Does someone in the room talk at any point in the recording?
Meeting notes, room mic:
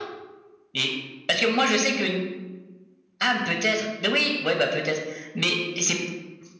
No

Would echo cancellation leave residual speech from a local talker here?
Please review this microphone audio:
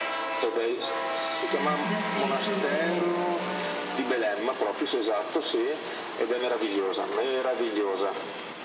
Yes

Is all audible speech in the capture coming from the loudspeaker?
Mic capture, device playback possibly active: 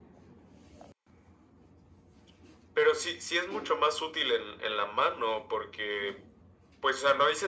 Yes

